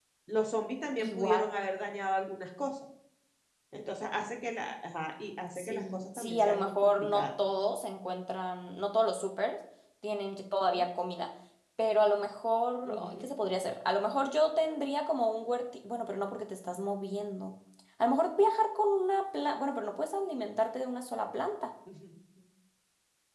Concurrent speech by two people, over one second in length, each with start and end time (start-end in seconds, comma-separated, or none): 5.6-7.2